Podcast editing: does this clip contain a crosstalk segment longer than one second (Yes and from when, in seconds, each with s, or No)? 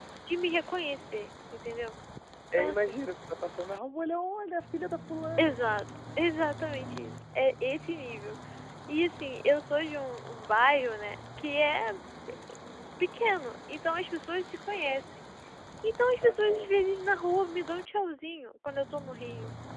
No